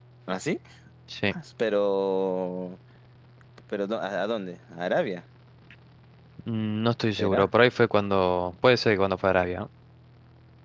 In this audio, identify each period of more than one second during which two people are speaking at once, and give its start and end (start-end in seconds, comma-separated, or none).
none